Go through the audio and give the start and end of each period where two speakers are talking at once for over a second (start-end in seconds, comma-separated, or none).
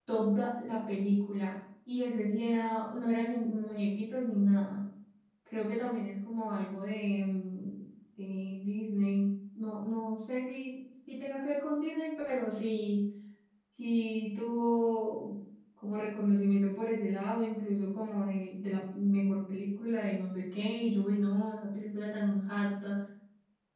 none